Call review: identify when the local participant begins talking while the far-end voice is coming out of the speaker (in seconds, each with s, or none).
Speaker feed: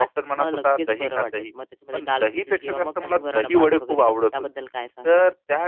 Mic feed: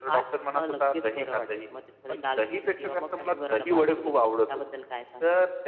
none